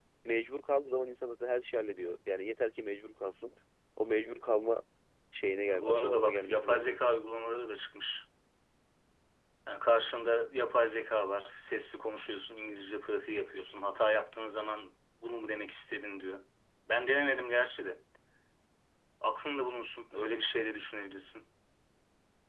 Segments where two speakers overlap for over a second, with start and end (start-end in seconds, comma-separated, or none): 5.7-7.1